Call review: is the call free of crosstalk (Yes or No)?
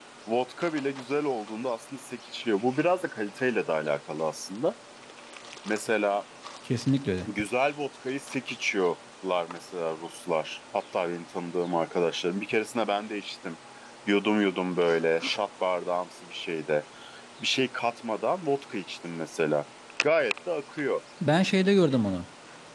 Yes